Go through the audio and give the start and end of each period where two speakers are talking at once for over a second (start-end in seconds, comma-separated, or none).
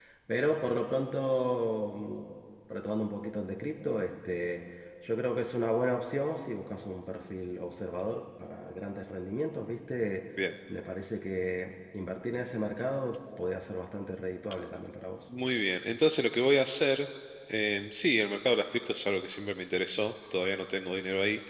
none